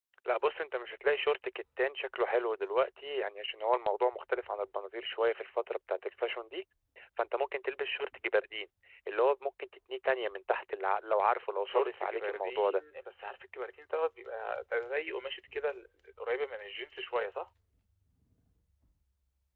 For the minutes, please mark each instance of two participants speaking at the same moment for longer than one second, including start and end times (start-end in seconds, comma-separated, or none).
11.6-12.8